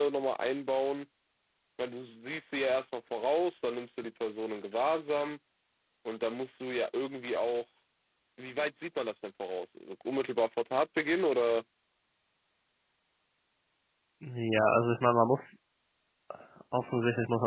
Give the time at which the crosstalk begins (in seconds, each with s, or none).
none